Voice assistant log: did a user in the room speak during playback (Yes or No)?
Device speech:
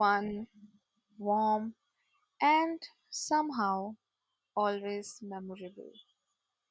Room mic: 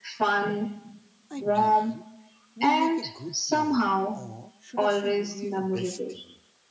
Yes